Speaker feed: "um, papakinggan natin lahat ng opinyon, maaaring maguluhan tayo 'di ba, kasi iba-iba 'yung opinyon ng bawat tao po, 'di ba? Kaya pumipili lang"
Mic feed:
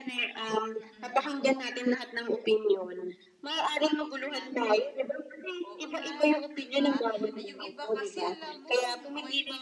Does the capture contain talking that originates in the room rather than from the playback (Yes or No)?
Yes